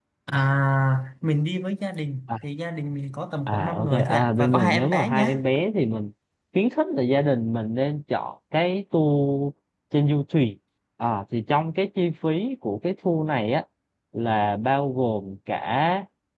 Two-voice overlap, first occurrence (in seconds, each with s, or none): 3.5 s